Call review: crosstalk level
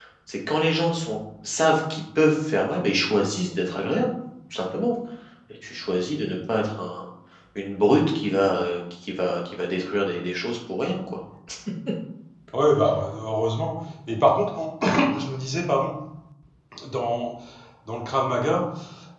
none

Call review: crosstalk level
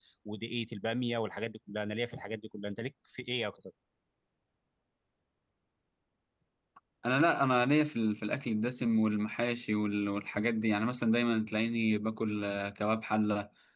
none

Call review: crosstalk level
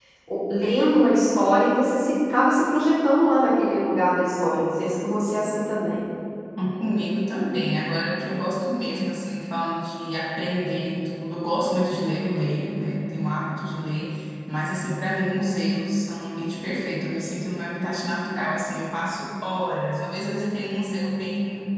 none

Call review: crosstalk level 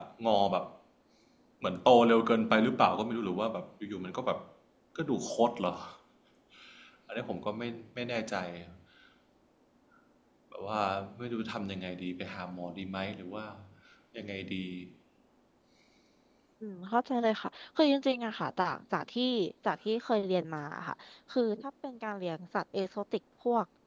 none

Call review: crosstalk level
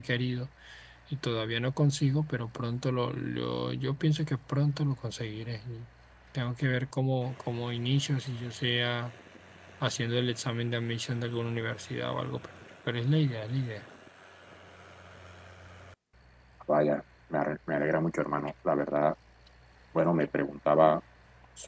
none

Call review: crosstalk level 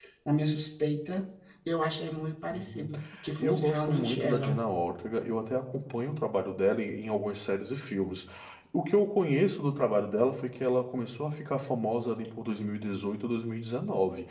present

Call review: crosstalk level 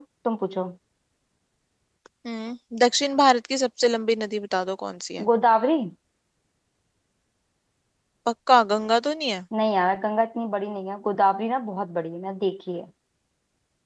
none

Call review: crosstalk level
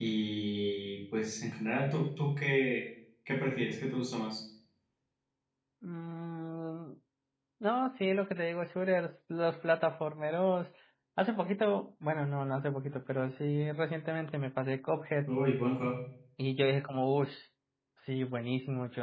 none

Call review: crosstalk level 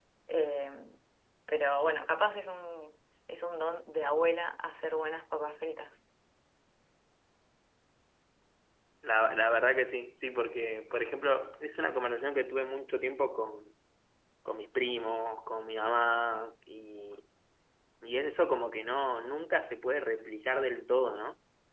none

